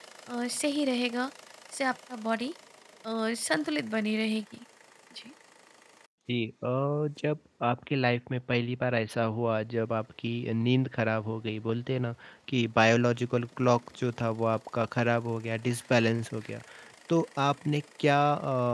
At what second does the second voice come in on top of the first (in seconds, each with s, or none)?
none